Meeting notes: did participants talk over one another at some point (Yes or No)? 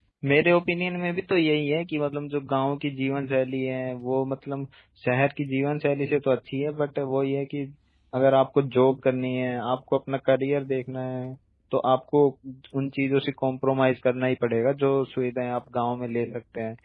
No